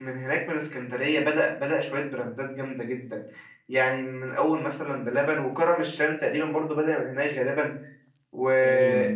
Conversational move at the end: listening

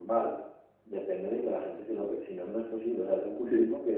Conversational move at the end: listening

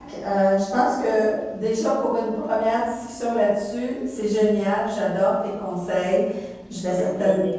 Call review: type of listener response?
listening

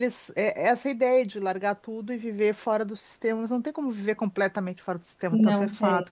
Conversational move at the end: listening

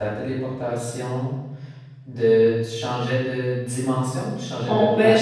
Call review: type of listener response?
taking over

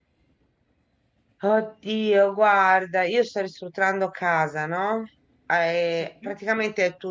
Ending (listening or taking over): listening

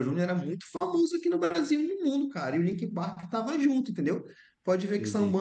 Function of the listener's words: listening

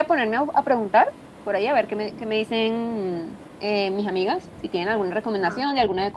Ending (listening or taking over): listening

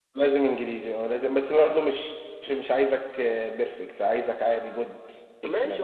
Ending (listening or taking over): taking over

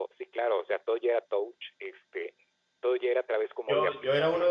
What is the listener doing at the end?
taking over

